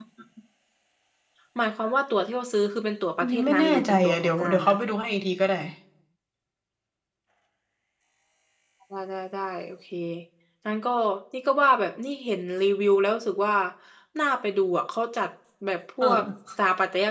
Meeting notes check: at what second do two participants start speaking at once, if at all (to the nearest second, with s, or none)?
3 s